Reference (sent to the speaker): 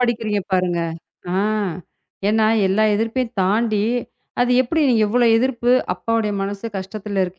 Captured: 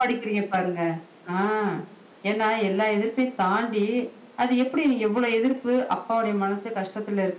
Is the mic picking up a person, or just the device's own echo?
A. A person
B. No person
B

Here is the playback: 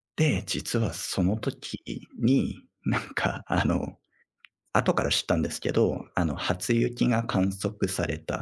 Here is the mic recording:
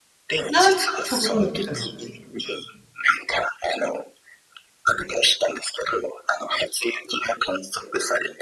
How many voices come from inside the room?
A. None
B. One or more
B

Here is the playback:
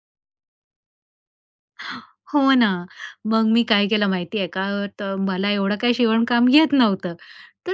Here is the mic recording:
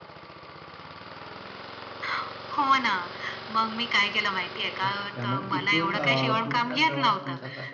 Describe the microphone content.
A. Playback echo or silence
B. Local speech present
B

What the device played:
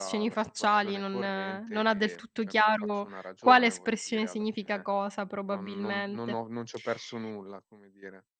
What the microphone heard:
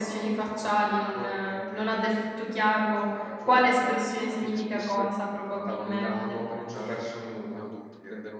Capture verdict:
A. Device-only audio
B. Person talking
B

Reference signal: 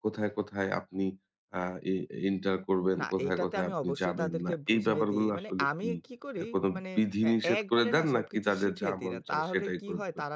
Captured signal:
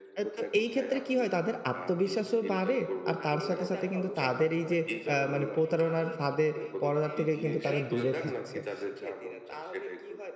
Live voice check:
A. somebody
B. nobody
A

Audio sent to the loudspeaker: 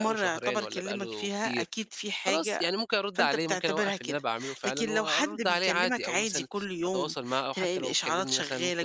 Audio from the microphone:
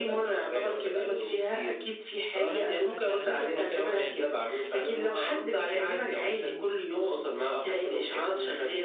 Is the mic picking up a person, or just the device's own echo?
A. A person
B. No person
A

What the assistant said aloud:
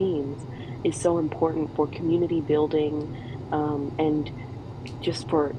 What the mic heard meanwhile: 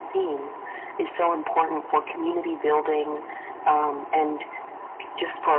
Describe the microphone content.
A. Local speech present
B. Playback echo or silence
B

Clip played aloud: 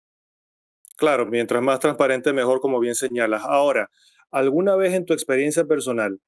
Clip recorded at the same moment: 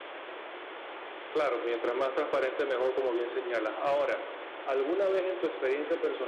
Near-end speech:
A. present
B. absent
B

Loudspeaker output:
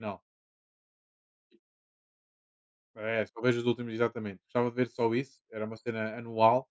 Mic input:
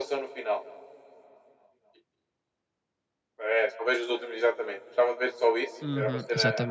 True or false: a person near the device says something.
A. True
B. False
A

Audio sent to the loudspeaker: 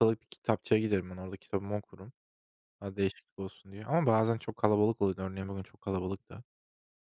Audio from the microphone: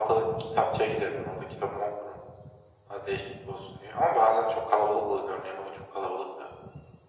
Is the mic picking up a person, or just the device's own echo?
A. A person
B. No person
B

